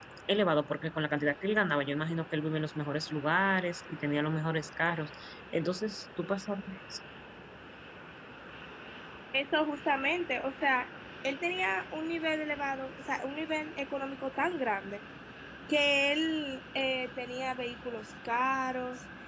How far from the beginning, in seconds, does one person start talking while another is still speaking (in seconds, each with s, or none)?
none